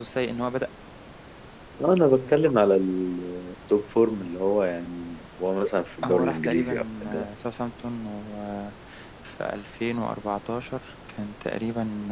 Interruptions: present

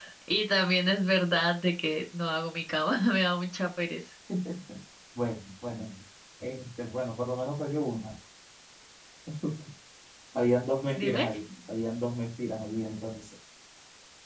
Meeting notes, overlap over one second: none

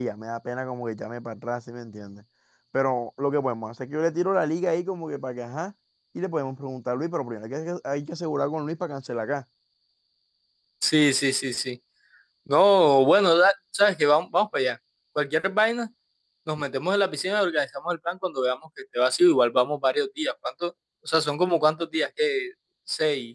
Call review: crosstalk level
none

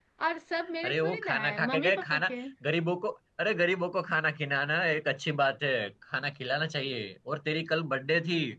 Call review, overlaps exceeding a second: present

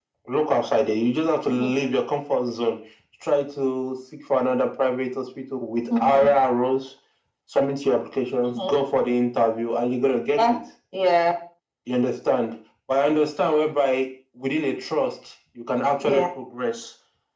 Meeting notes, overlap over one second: none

